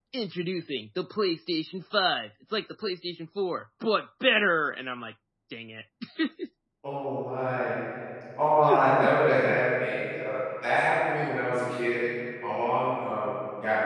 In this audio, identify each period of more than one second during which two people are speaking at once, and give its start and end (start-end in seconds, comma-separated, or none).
none